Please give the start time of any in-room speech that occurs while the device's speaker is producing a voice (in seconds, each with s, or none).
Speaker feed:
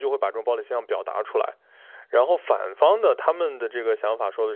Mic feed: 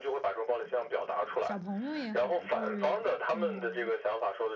1.4 s